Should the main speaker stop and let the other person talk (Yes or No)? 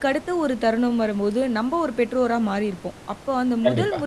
No